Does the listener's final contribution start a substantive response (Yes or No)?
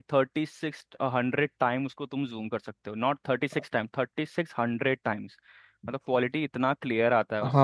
Yes